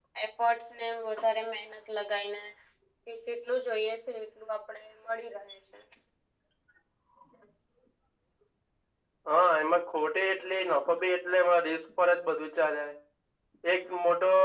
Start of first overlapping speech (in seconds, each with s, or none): none